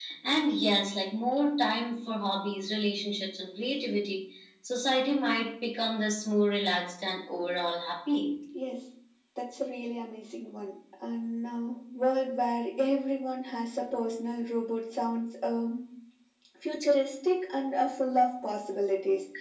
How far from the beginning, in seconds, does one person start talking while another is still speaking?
none

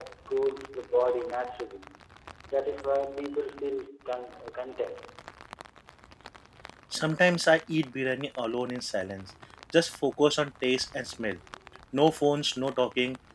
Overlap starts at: none

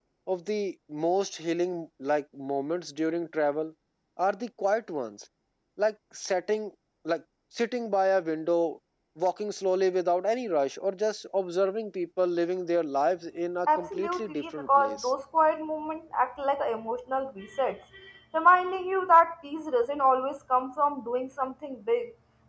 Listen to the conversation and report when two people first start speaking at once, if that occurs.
13.7 s

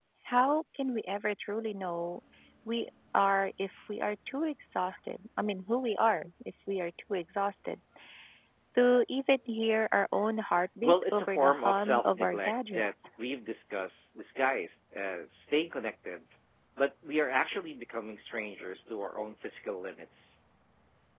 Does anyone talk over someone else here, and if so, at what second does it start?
10.8 s

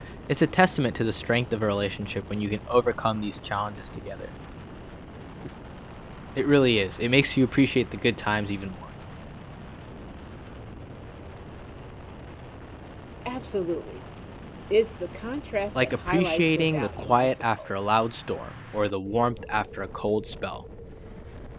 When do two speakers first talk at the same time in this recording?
15.8 s

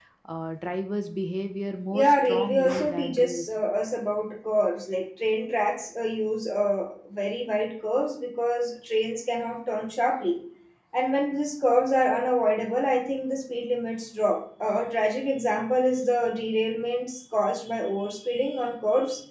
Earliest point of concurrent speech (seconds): 1.9 s

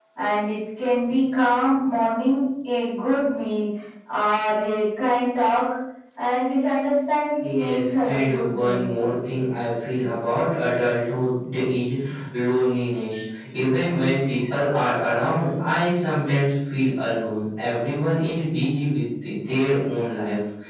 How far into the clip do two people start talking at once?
7.4 s

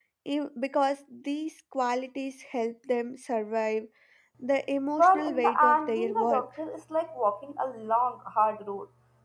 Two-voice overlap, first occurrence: 5.0 s

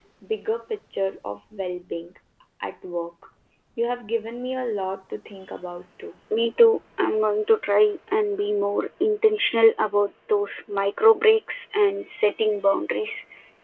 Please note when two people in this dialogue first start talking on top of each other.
none

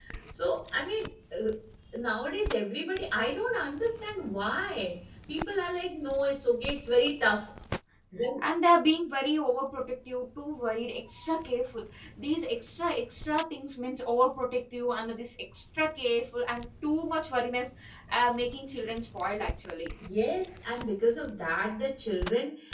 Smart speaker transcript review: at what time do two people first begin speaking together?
none

